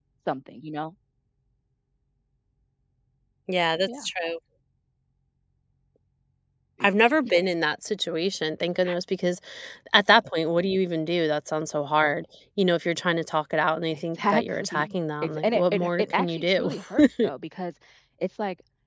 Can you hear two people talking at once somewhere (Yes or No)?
Yes